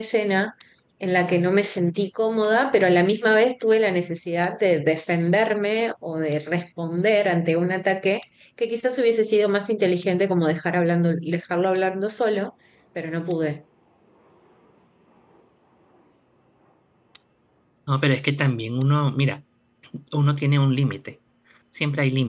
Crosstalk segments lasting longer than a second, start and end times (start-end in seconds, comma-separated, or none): none